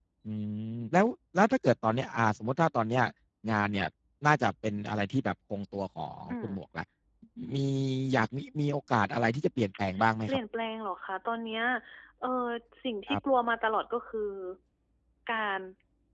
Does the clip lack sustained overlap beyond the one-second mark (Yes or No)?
Yes